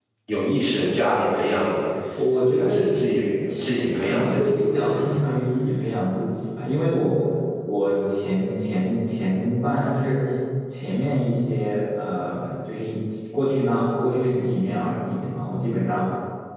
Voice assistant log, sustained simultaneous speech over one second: present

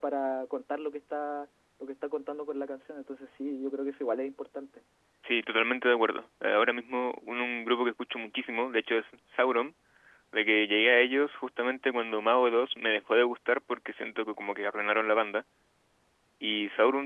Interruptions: none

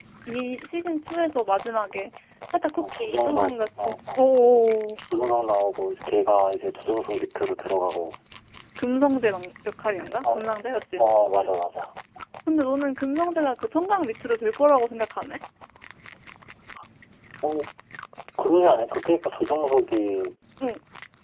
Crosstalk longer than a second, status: present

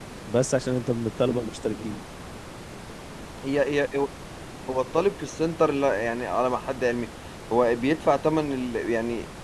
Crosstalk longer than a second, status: none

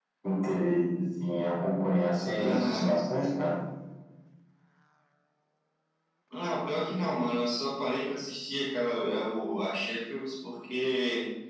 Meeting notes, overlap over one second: none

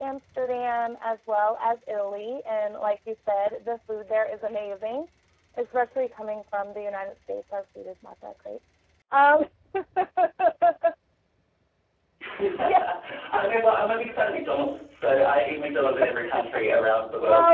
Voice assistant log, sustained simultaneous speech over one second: none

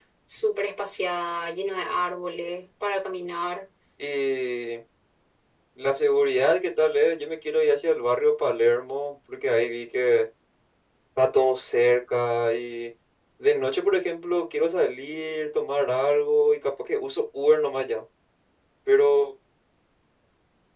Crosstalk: none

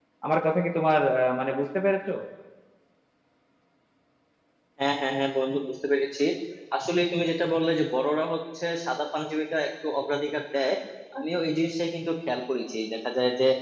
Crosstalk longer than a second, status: none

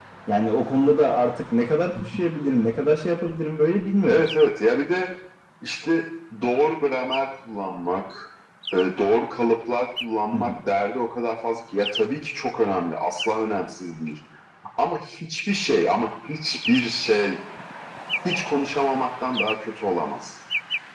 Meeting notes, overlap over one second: none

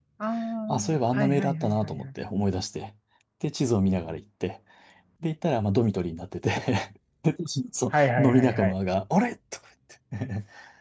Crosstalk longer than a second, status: present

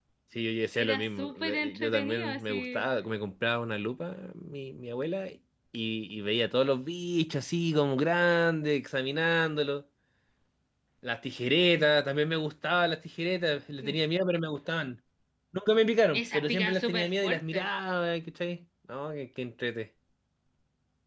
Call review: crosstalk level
present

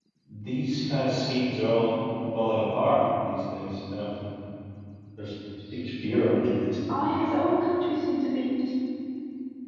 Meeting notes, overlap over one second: none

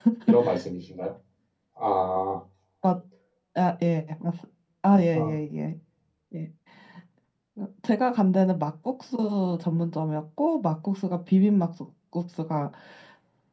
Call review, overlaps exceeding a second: none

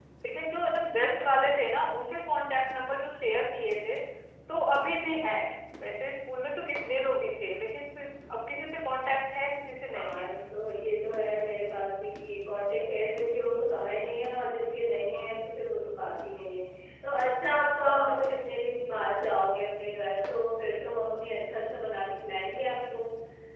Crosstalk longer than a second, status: none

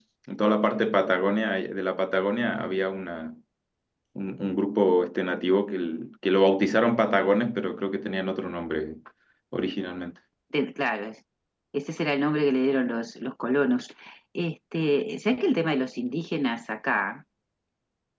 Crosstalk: none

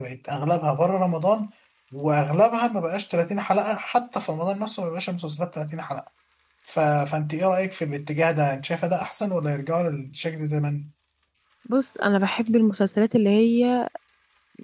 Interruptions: none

